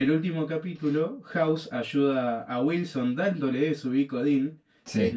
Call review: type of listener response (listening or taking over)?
listening